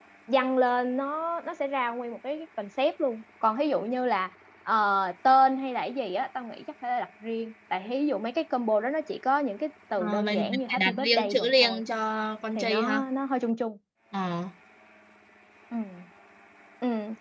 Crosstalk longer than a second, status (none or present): present